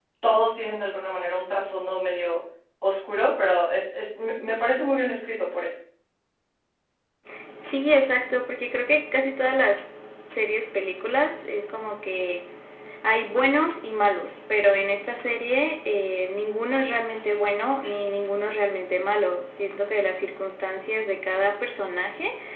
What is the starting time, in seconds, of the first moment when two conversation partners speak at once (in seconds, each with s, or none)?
none